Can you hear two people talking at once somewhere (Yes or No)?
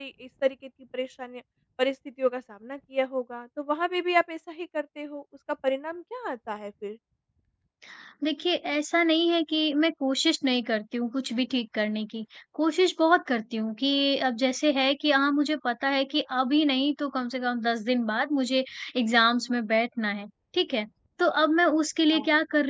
No